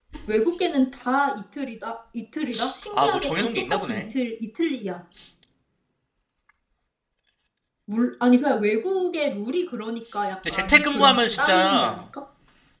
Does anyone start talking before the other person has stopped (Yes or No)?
Yes